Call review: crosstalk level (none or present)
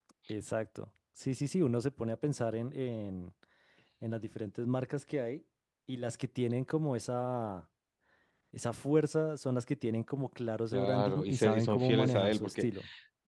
present